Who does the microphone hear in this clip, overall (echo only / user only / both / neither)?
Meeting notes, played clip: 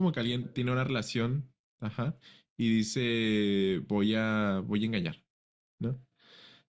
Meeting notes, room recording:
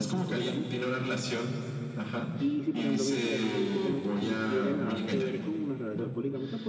both